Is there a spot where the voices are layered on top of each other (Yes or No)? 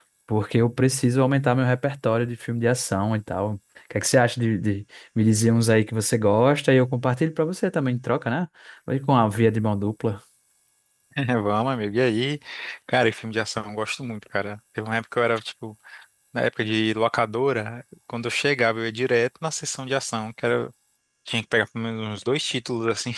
No